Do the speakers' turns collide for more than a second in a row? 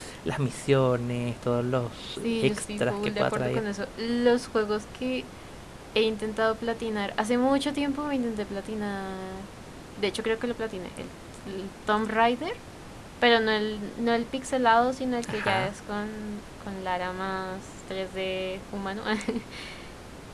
Yes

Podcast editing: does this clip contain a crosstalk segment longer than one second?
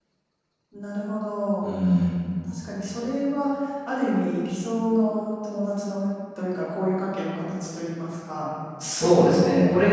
No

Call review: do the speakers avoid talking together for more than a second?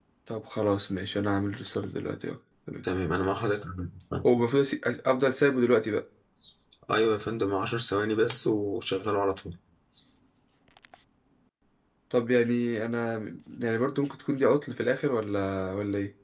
Yes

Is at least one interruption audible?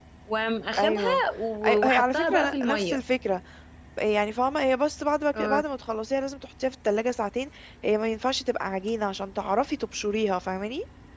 Yes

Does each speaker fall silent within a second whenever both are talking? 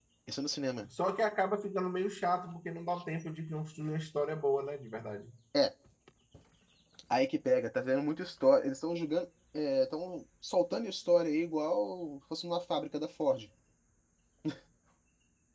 Yes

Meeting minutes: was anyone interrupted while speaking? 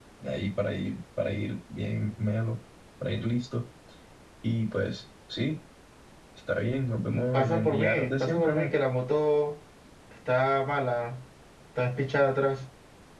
Yes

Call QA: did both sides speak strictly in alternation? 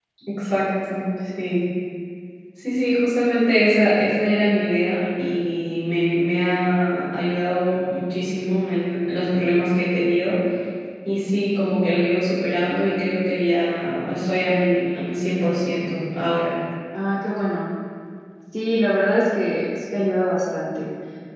Yes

